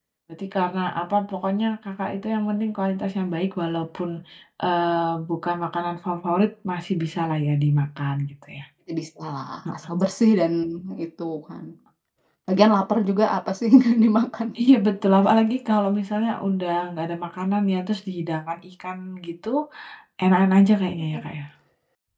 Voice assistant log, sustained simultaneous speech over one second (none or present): none